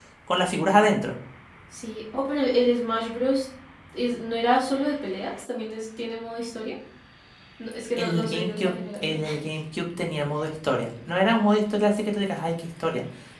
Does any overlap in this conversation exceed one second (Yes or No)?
Yes